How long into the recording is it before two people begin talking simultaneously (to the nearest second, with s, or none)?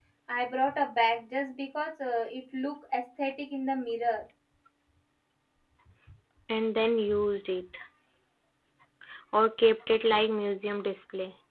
none